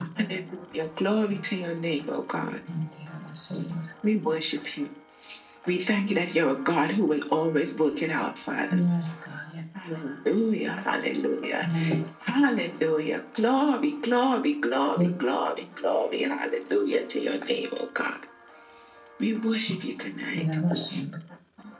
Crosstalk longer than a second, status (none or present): none